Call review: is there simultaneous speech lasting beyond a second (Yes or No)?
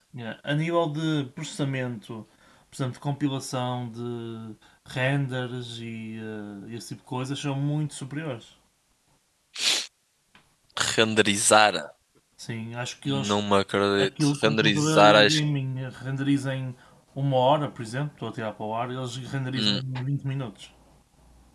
Yes